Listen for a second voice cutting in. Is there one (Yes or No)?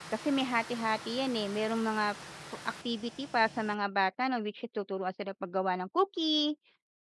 No